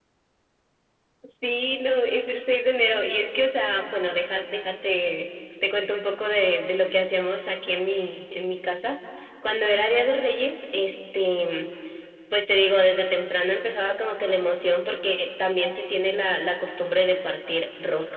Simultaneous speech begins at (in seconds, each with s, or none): none